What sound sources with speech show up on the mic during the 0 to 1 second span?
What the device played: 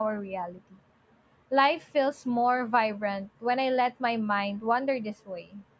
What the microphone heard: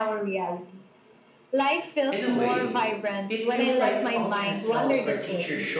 echo only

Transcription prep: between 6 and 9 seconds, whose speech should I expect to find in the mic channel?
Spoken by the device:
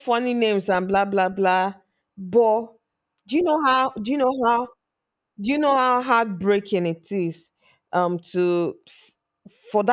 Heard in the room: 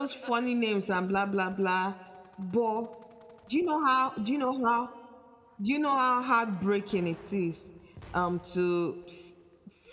echo only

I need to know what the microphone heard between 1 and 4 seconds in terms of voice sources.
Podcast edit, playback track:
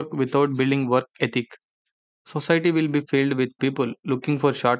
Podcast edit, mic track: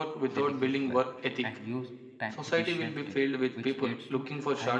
both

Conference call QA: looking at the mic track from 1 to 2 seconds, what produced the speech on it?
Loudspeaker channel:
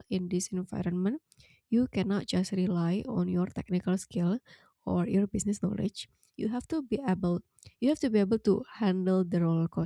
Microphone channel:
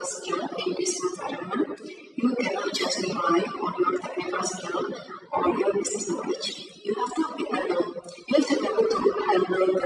echo only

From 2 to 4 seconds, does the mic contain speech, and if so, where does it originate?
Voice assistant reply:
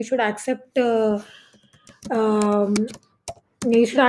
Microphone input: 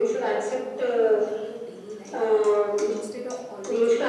both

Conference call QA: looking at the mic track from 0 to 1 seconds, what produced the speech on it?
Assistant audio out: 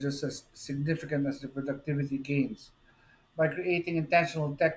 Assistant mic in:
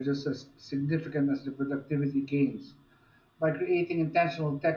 echo only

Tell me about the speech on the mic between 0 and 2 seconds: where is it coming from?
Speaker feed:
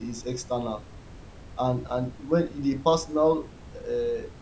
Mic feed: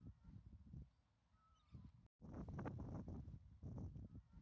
neither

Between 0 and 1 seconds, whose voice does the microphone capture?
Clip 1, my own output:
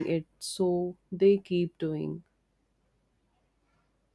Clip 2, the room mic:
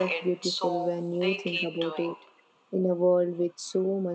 both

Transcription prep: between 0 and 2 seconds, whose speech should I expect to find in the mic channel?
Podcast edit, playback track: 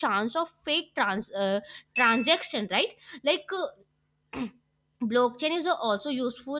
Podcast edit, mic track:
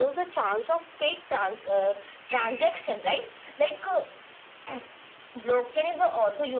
echo only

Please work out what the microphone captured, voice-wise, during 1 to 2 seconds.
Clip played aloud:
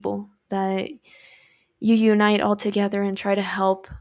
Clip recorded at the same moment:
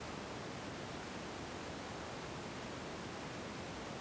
neither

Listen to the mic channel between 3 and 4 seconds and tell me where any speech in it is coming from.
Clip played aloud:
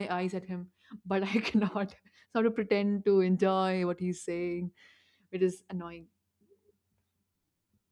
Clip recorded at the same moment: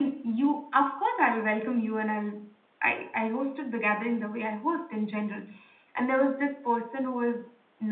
user only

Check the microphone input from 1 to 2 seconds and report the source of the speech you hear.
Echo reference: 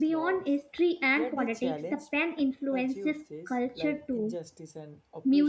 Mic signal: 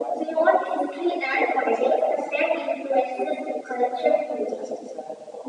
echo only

